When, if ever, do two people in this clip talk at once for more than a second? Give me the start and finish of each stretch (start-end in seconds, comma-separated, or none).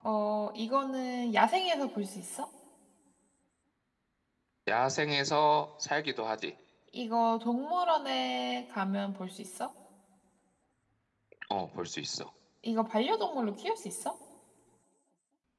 none